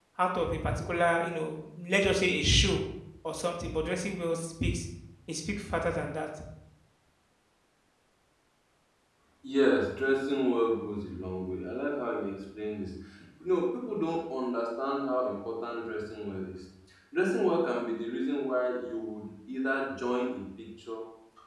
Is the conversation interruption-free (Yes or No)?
Yes